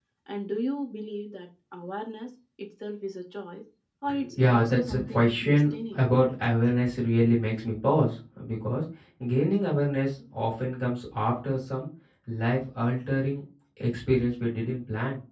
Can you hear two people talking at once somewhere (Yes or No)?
Yes